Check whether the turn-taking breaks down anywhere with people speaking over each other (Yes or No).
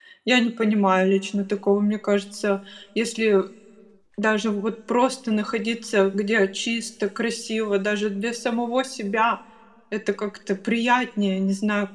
No